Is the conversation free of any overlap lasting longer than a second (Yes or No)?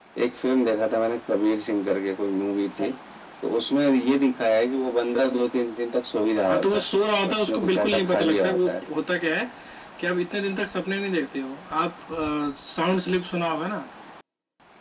No